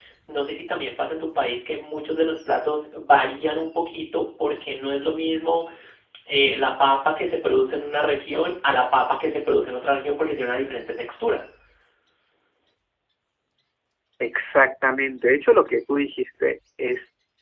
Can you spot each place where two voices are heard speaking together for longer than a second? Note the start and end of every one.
none

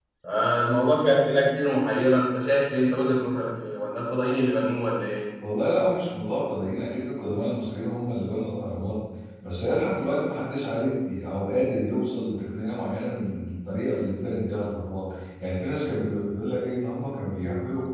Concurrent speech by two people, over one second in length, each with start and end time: none

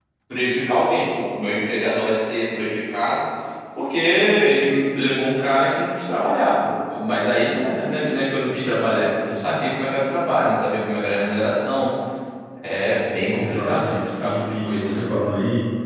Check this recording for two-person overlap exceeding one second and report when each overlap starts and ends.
13.3-15.1

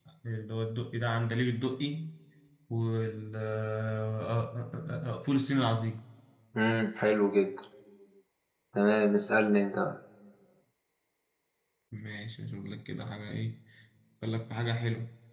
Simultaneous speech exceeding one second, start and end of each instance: none

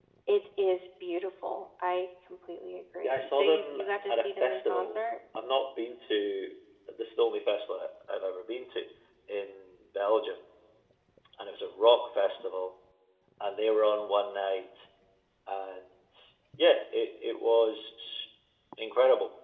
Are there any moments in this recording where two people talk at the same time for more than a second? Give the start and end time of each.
3.0-5.0

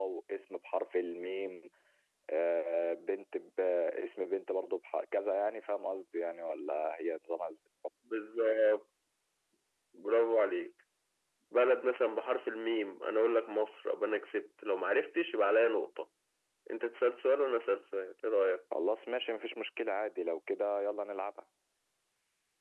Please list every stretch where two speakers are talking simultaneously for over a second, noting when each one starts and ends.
none

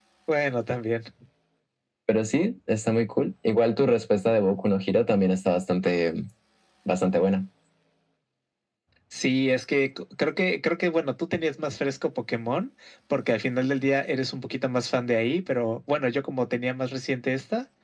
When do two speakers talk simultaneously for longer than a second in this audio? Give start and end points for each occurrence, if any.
none

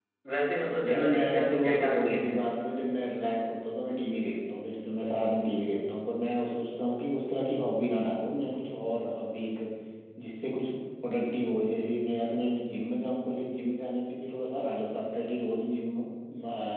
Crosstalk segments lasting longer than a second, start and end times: 0.8-2.3

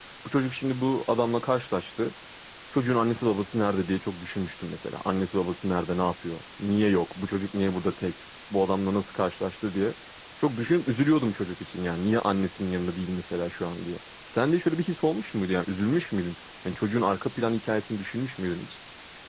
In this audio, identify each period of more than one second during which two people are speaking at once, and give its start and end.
none

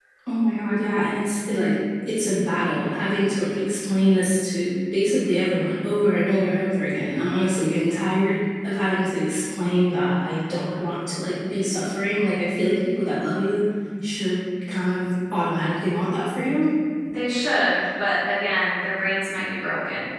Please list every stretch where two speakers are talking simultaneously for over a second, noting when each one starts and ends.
none

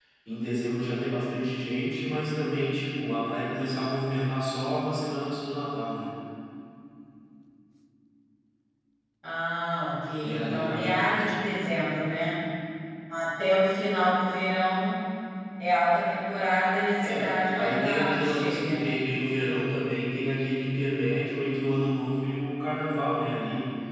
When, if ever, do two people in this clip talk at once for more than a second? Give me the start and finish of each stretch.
10.2-11.7, 17.0-19.0

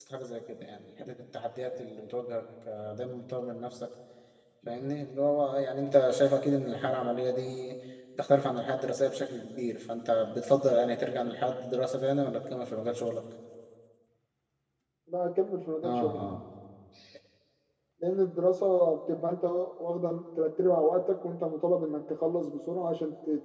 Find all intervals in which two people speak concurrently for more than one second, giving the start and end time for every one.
none

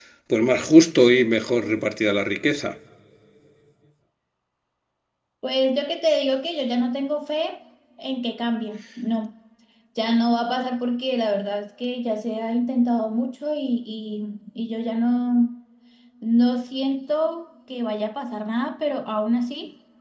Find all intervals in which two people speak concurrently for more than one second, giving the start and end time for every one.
none

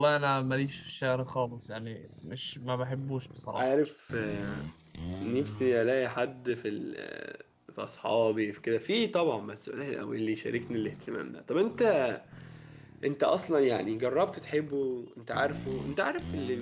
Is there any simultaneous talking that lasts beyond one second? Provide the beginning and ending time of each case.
none

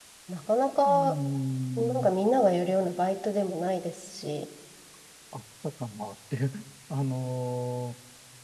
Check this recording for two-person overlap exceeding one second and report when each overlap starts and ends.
none

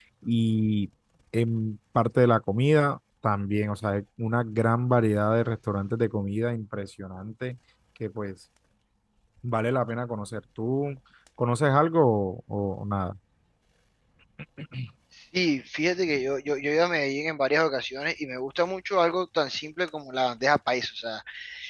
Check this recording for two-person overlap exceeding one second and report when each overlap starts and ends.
none

